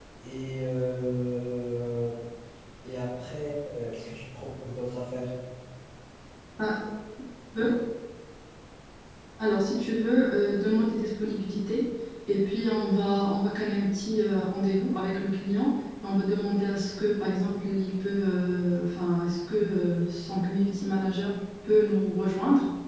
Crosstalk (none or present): none